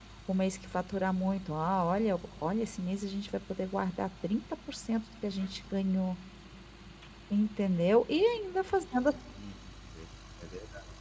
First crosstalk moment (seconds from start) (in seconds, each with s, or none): none